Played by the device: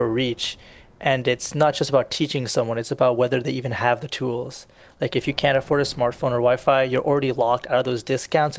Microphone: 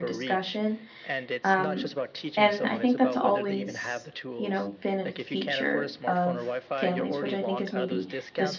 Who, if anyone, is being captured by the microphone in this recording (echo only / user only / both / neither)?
both